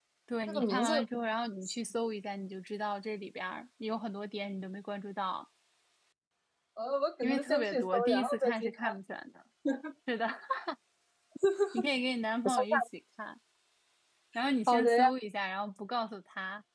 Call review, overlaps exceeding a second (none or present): present